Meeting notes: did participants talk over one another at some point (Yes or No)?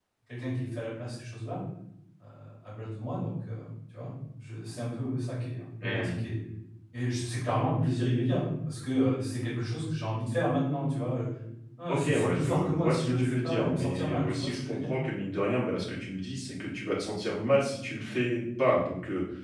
Yes